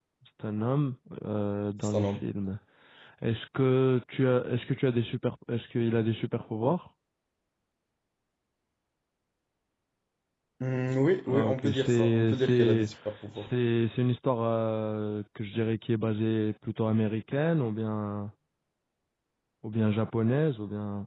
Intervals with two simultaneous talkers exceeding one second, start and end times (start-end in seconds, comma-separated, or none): 11.3-12.9